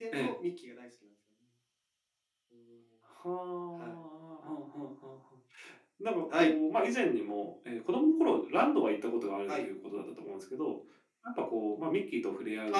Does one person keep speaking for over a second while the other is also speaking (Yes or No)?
No